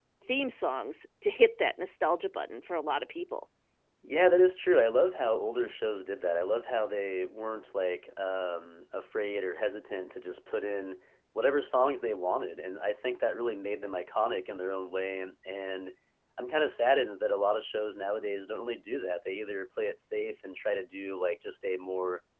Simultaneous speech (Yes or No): No